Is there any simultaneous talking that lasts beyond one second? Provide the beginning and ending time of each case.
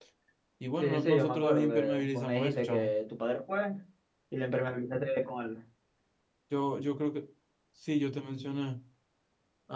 0.8-2.9

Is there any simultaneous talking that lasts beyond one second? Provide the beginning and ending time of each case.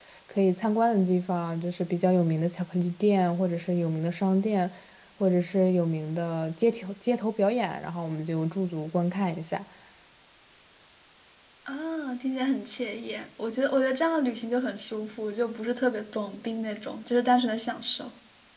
none

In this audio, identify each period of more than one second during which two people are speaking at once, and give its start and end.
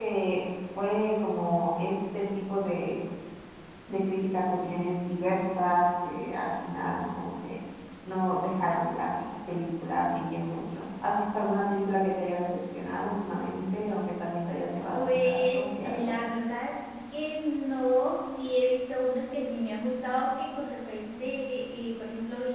14.9-16.2

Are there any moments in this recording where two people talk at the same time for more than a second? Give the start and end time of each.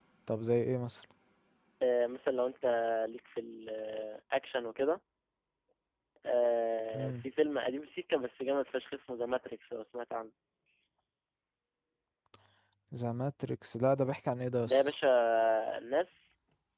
none

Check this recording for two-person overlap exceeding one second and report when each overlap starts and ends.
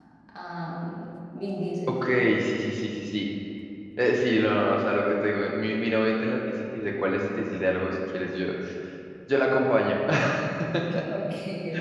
none

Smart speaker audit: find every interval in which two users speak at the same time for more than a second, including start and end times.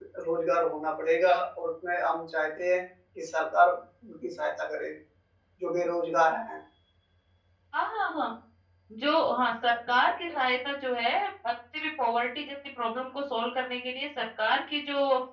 none

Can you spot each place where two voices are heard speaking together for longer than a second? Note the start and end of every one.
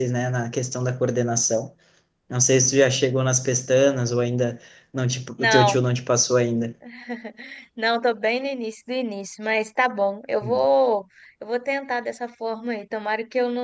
none

